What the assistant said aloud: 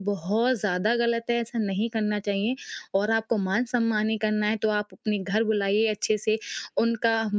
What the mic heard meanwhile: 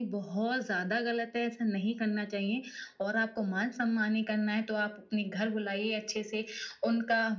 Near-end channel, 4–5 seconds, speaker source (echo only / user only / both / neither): echo only